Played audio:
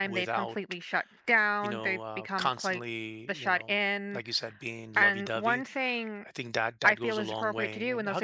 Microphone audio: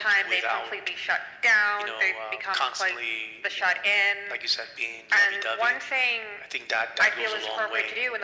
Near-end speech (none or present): none